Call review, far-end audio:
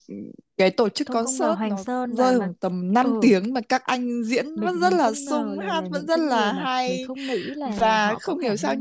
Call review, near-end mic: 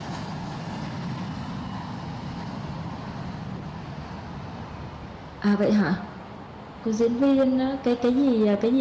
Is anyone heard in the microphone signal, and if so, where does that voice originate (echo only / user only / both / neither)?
user only